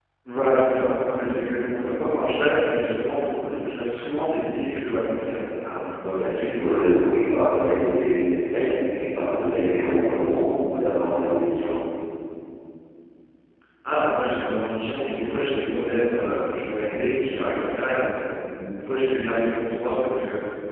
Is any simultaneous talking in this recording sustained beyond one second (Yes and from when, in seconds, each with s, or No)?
No